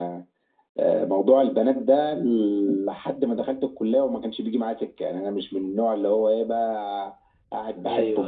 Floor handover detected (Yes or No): No